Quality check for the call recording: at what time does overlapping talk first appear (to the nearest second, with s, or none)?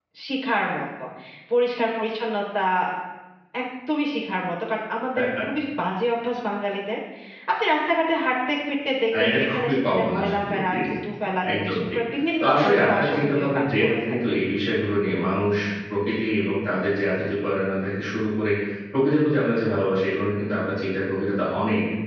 9 s